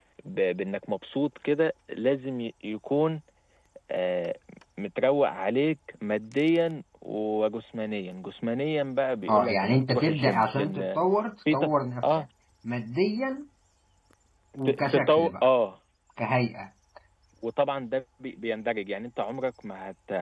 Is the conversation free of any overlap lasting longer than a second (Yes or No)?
No